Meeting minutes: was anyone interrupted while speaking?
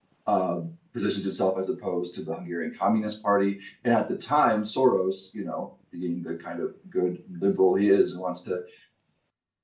No

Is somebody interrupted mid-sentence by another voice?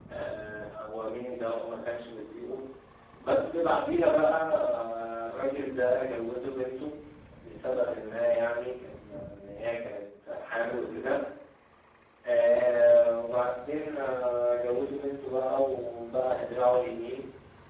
No

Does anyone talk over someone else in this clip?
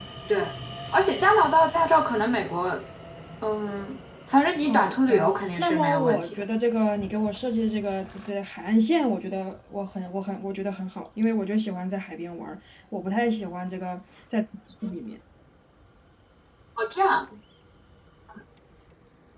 Yes, from 4.6 s

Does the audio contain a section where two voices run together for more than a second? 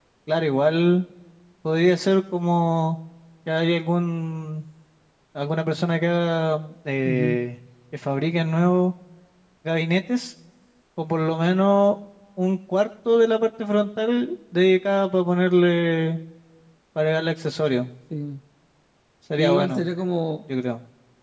No

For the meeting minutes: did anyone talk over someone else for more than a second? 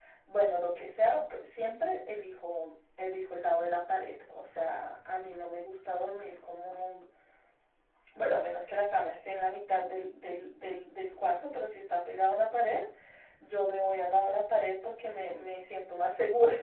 No

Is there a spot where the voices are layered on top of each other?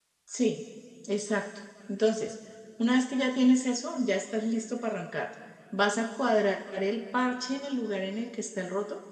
No

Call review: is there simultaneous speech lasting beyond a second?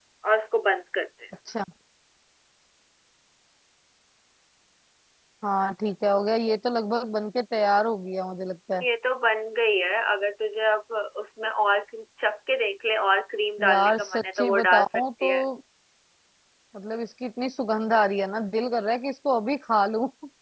Yes, from 13.6 s

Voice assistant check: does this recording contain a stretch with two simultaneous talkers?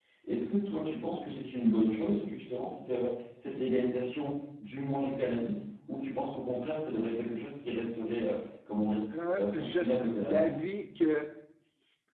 Yes, from 9.1 s

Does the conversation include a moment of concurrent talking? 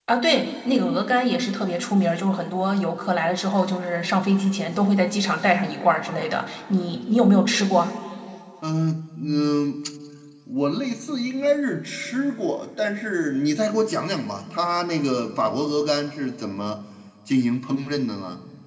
No

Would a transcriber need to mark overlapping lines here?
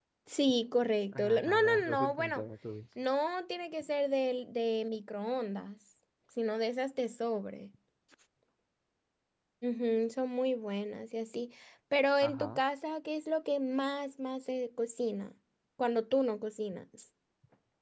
Yes, from 1.1 s

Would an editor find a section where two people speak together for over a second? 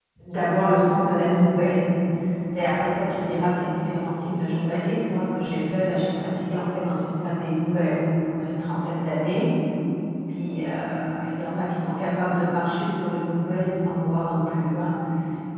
No

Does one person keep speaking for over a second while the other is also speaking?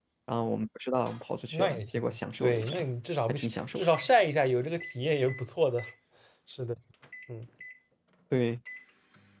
Yes, from 1.5 s

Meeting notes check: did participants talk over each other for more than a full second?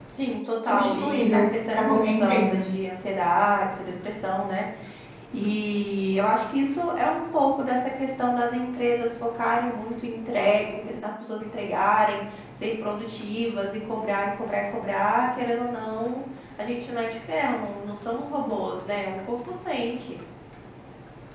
Yes, from 0.6 s

